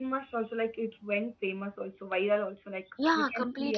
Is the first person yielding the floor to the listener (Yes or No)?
Yes